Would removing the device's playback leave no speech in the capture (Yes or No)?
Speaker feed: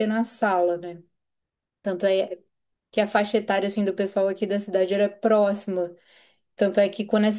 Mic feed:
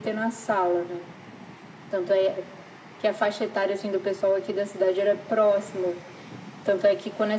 Yes